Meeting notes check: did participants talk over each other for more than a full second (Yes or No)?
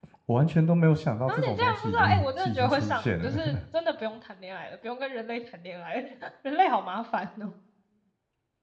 Yes